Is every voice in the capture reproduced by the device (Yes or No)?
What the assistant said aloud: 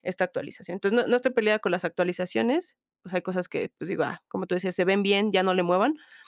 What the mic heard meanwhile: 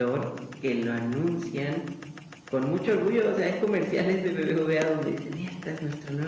No